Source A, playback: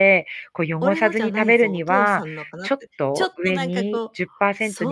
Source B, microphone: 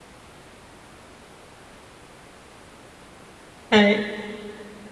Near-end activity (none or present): present